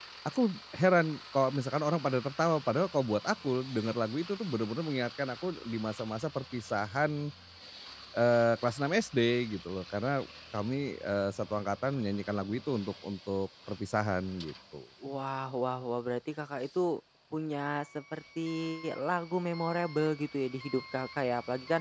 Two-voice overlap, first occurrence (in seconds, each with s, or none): none